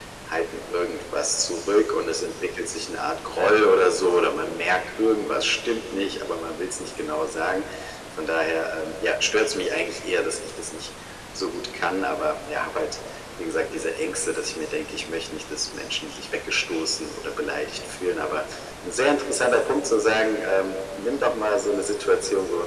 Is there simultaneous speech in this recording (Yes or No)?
No